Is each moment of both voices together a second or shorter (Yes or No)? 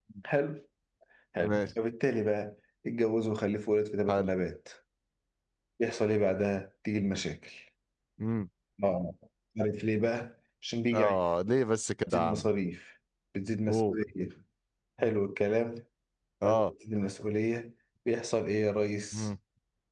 Yes